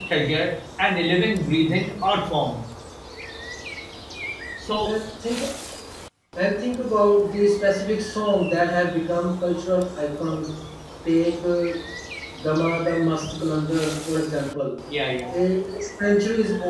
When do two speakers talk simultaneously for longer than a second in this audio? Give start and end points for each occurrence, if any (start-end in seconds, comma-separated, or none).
none